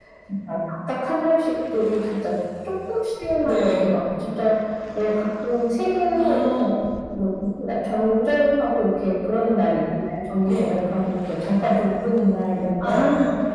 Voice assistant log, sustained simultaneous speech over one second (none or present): none